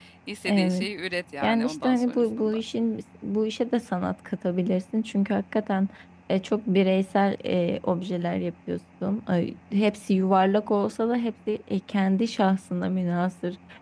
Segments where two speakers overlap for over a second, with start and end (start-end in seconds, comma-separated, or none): 1.4-2.6